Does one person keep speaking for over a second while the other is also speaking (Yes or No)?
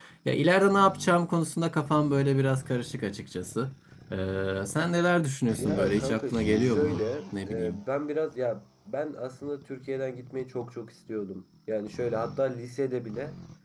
Yes